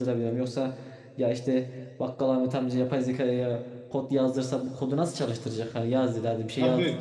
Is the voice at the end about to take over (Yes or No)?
Yes